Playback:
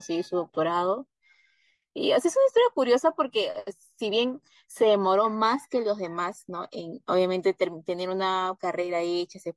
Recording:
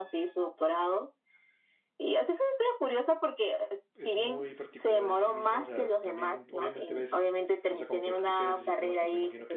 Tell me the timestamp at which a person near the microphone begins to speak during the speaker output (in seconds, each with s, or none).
4.0 s